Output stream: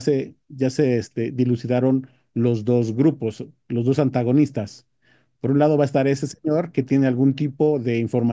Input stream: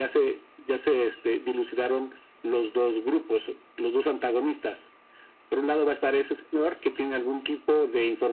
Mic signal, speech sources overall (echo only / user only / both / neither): echo only